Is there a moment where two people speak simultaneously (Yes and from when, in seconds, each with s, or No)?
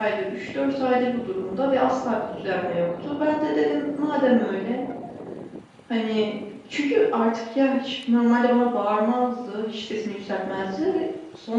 No